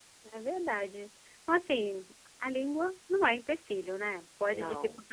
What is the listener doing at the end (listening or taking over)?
listening